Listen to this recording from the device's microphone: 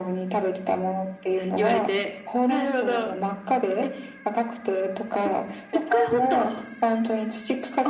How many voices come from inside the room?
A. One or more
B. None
B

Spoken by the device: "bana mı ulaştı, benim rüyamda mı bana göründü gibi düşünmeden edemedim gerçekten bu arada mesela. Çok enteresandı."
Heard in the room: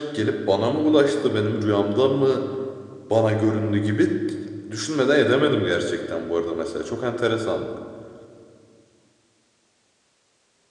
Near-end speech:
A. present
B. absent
B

